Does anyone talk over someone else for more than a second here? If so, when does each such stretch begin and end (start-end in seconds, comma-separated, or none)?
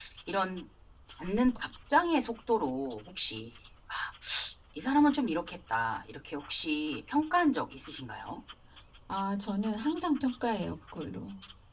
none